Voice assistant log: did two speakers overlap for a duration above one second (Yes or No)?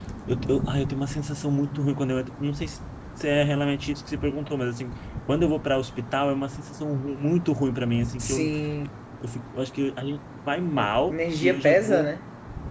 Yes